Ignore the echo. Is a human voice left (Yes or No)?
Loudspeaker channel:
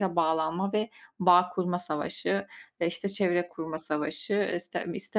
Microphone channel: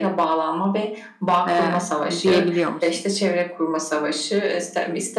Yes